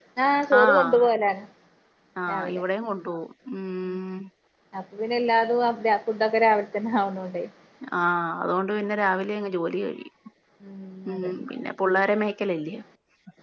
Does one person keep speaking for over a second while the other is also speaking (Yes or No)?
No